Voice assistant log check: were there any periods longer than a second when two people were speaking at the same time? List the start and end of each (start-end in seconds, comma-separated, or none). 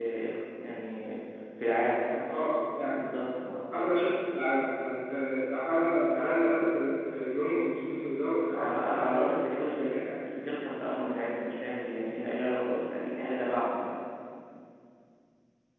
8.5-10.0